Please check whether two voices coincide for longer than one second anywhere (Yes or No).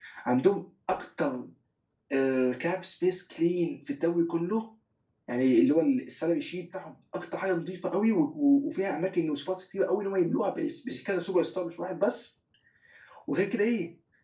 No